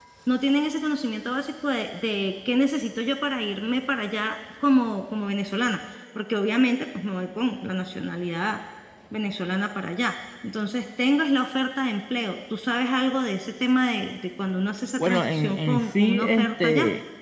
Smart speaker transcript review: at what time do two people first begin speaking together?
15.0 s

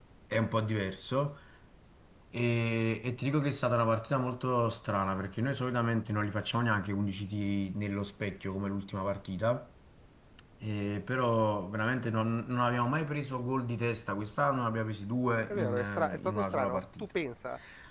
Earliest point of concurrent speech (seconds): 15.5 s

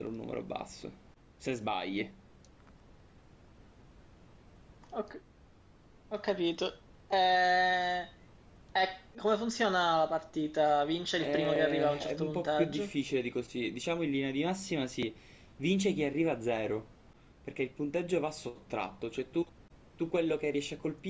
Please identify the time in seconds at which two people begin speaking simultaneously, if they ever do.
11.2 s

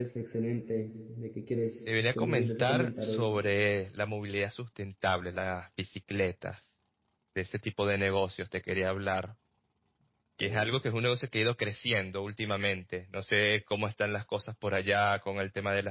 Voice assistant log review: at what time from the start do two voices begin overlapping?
1.9 s

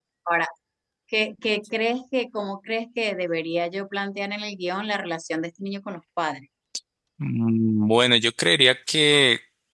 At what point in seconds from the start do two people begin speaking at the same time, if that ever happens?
none

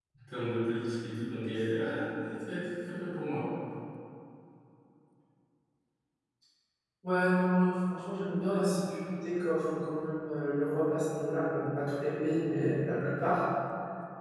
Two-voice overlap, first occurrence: none

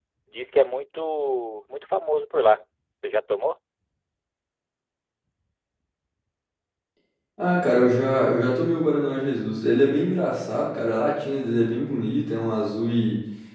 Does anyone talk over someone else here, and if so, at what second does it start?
none

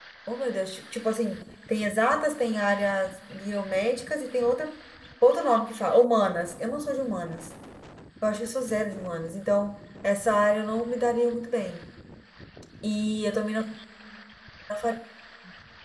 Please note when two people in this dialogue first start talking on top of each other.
none

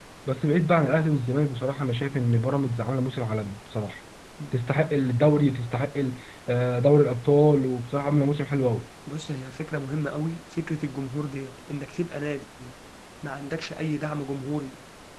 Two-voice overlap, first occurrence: none

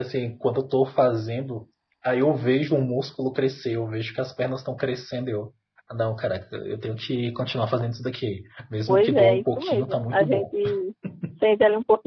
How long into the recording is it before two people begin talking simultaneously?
8.9 s

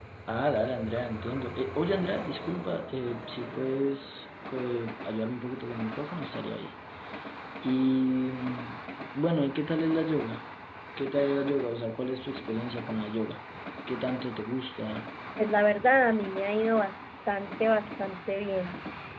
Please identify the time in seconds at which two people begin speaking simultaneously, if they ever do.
none

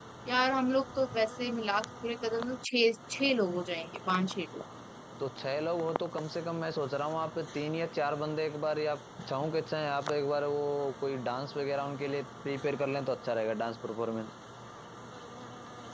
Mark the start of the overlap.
none

